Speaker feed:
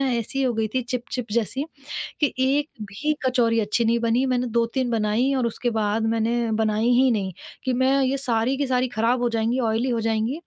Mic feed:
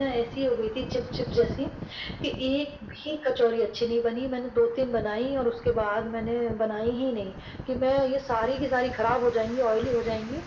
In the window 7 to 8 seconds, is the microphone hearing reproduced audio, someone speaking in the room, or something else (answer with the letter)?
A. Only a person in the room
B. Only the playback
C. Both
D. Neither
B